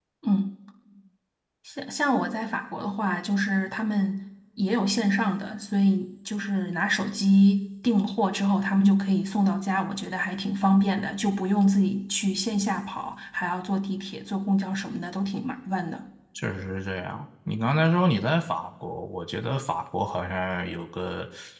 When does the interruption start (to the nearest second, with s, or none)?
none